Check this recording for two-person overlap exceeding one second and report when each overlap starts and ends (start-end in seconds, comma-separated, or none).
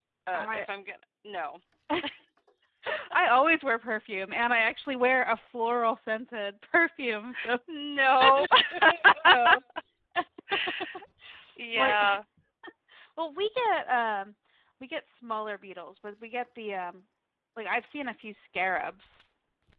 none